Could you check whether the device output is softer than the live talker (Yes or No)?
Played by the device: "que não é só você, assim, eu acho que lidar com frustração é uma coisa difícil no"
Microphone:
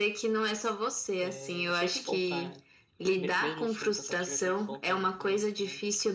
No